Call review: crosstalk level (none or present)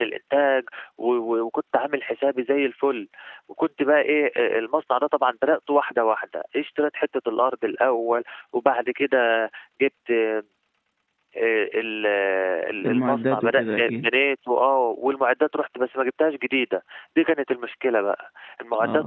present